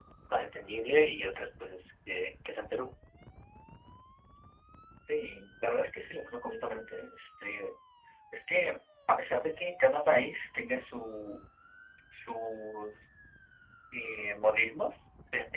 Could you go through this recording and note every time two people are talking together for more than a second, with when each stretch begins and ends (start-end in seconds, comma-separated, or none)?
none